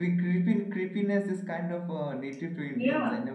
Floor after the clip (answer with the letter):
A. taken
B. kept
A